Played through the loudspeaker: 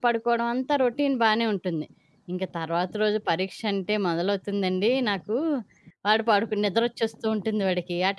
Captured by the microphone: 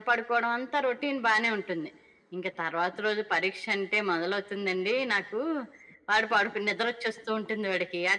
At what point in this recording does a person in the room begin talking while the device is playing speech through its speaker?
none

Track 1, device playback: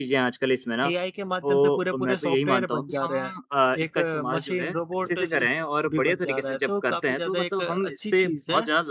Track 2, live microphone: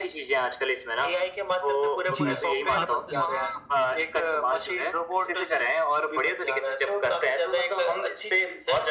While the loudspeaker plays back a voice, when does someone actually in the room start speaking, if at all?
2.1 s

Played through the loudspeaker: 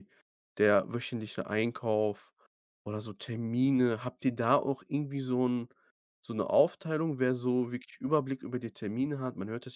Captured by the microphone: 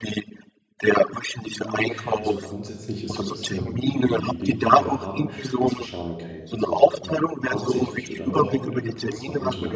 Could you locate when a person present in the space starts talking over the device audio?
1.4 s

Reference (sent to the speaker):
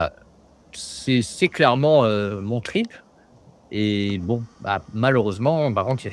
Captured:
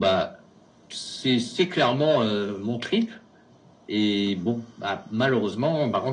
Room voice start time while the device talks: none

